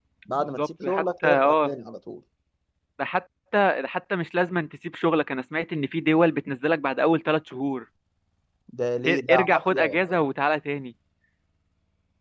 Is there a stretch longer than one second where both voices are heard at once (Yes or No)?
Yes